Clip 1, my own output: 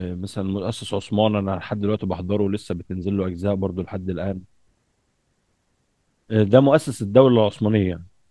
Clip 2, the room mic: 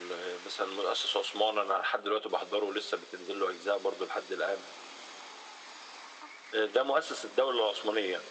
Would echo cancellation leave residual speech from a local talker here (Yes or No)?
No